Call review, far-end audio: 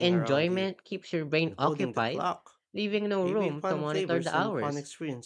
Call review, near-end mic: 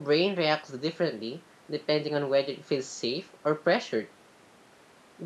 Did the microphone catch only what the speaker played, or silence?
No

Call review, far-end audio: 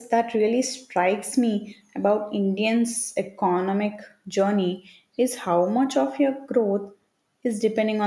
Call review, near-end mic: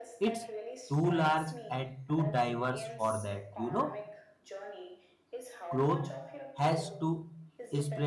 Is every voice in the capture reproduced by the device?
No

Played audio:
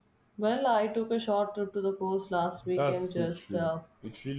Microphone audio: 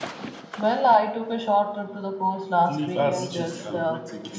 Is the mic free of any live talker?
No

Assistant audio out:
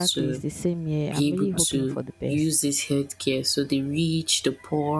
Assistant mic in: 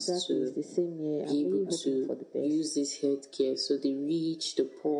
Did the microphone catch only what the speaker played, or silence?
Yes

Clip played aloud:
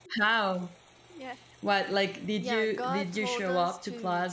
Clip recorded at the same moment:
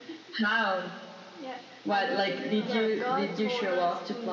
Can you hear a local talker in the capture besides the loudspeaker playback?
Yes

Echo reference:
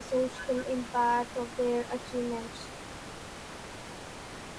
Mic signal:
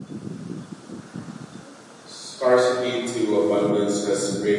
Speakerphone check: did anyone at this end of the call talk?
Yes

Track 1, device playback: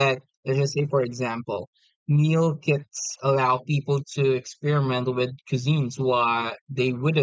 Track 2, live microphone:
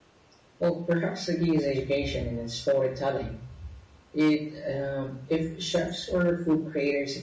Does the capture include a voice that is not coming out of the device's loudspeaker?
Yes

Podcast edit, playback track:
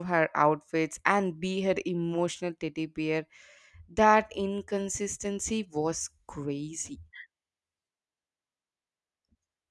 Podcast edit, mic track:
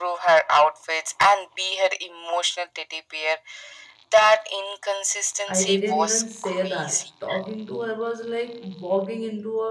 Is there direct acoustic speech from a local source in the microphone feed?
Yes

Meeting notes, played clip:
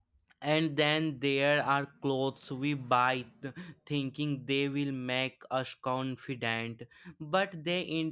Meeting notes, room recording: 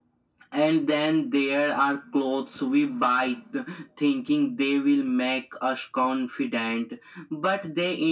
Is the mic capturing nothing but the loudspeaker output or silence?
Yes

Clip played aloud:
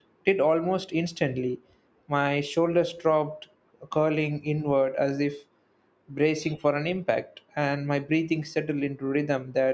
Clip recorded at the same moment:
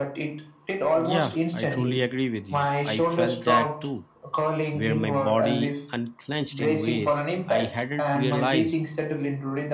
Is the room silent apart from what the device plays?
No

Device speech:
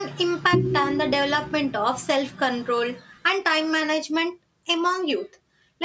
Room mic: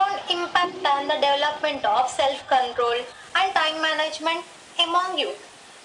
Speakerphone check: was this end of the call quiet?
Yes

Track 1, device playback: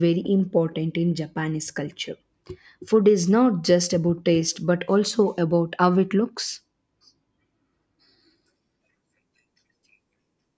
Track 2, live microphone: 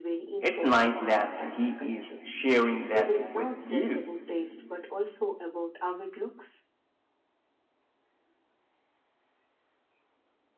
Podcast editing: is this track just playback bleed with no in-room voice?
No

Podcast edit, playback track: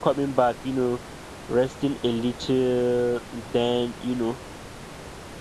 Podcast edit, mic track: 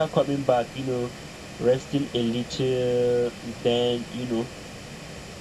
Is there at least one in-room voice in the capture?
No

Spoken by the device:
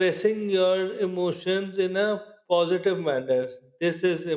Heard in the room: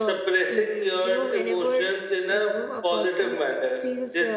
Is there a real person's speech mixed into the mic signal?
Yes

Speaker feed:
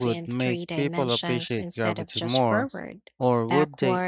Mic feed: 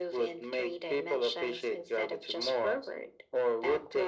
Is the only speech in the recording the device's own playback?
Yes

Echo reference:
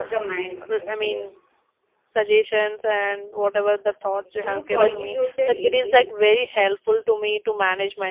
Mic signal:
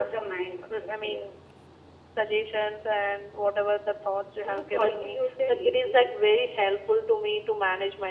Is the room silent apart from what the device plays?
Yes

